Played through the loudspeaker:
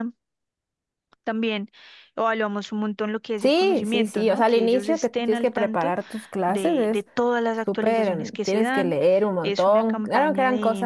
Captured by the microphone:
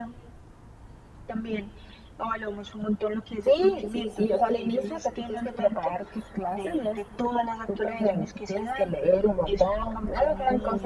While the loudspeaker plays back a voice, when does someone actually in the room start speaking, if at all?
none

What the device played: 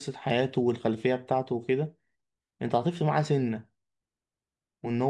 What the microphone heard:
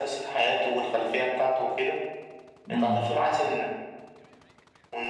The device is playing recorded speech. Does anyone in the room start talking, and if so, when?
3 s

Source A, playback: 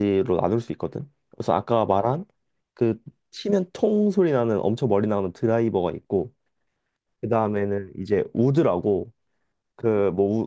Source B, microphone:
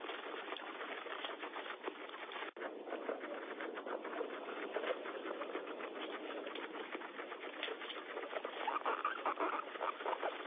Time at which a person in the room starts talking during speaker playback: none

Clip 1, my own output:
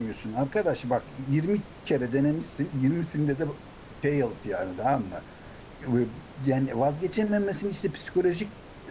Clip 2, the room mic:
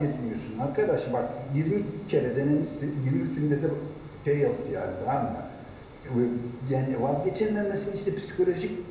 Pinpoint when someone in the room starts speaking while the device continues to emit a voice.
none

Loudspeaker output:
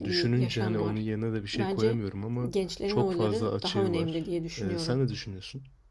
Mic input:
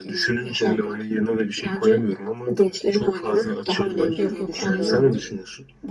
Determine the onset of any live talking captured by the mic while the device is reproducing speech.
4 s

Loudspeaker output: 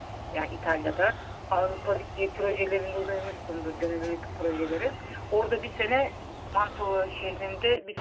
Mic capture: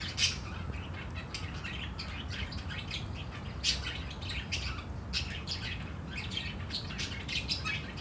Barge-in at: none

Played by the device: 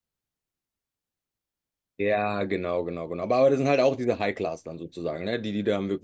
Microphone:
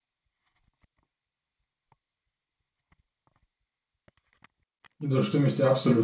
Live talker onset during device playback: 5 s

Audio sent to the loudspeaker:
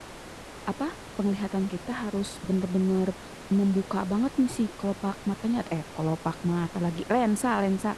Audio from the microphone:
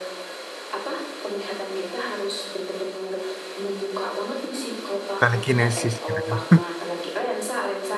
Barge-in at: 5 s

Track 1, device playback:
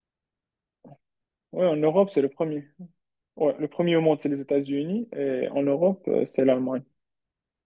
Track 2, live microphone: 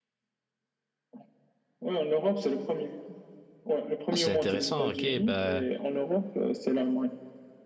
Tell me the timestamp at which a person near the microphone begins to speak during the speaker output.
4 s

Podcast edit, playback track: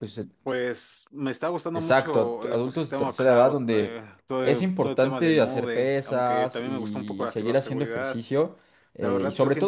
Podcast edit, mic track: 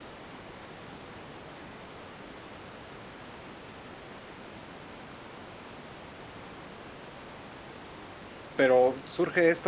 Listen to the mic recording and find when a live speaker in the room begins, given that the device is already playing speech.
9 s

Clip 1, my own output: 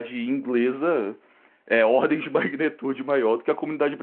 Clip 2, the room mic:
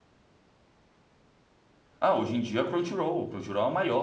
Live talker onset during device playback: 2 s

